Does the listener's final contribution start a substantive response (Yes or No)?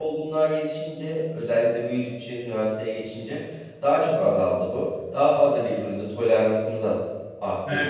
Yes